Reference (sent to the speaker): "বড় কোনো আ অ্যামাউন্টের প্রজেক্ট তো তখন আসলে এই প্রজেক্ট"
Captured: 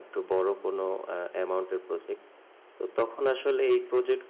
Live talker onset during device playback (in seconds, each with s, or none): none